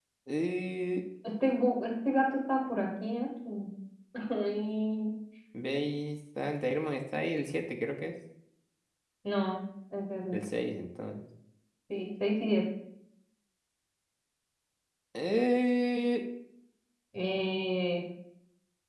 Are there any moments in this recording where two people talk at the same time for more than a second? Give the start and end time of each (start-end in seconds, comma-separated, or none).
none